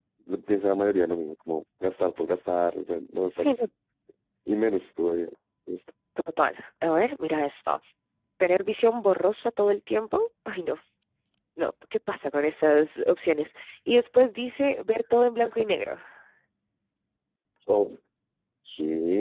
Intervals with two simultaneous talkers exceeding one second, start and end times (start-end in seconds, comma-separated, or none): none